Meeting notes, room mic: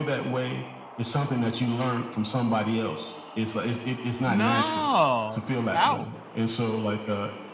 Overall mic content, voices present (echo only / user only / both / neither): both